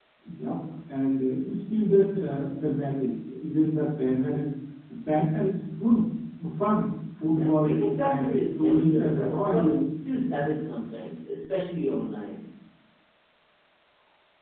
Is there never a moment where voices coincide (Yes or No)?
No